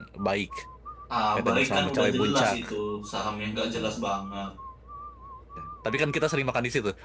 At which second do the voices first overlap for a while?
1 s

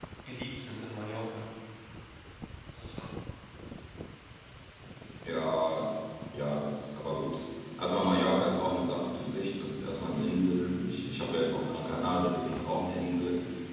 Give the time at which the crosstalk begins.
none

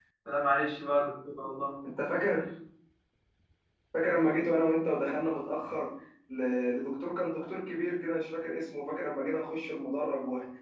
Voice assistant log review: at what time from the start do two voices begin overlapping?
none

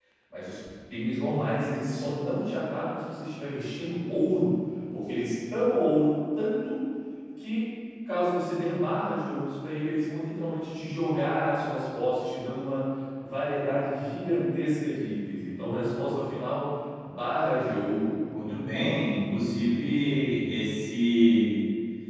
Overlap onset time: none

